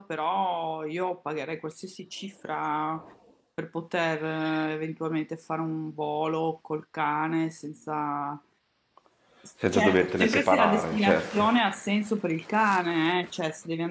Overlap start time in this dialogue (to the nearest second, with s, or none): 10 s